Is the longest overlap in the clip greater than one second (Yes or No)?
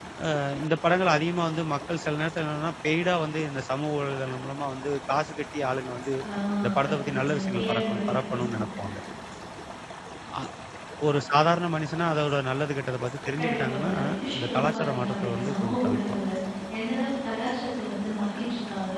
Yes